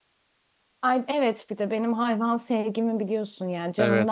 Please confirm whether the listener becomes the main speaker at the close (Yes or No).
Yes